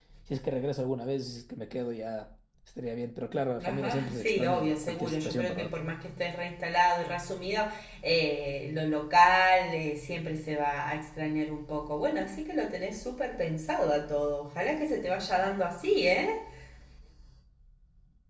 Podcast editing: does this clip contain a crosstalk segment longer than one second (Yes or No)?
Yes